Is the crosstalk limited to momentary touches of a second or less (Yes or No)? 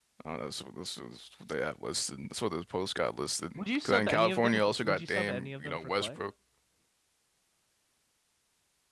No